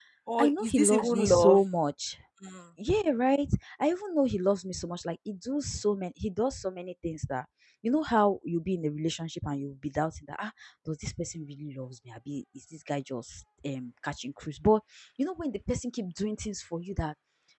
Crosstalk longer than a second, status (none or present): present